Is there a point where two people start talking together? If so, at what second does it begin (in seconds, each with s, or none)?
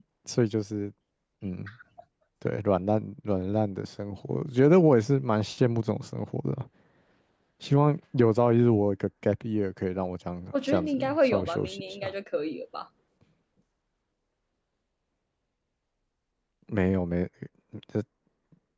10.5 s